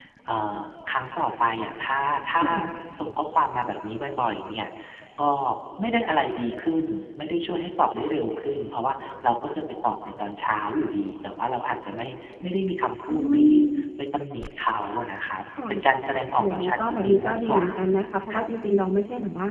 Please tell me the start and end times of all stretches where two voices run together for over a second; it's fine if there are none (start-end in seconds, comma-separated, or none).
16.4-17.7